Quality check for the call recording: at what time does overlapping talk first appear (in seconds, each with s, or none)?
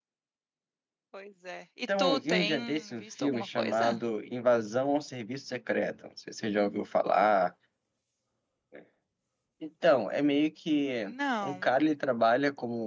2.0 s